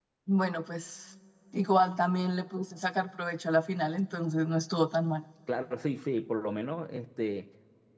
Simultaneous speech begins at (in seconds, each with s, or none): none